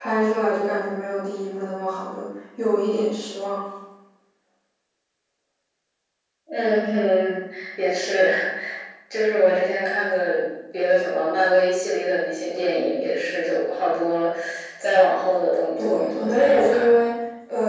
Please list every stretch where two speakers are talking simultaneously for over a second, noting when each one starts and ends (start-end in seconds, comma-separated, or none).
15.8-17.0